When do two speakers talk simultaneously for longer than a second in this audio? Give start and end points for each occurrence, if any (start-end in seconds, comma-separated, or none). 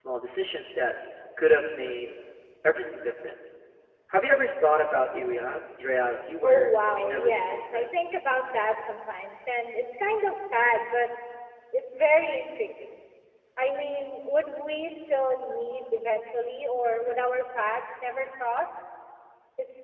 6.4-8.1